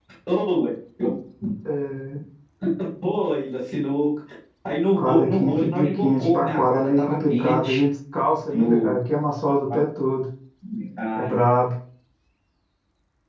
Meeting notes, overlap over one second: present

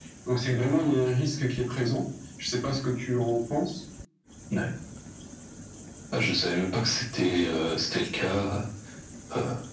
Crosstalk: none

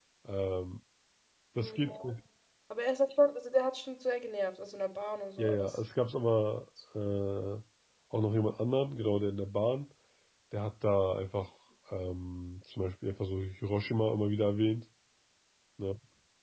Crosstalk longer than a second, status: none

